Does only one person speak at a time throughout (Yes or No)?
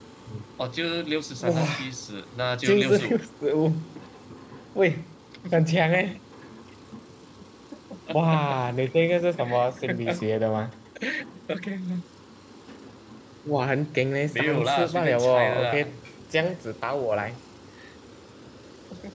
No